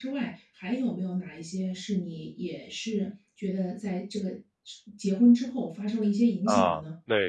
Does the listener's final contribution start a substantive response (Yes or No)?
Yes